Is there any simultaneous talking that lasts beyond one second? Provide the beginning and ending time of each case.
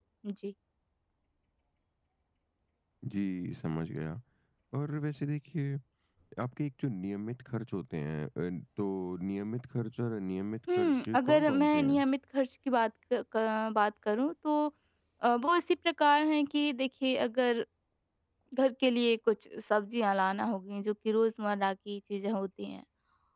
10.8-12.0

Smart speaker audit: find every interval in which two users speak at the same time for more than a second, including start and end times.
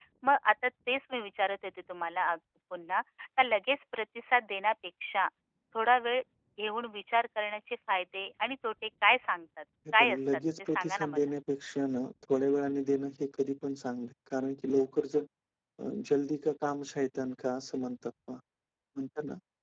10.0-11.3

